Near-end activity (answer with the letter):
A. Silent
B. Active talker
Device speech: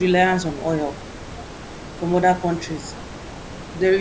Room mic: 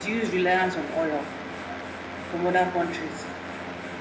A